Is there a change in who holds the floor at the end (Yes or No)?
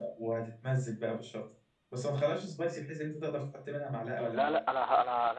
Yes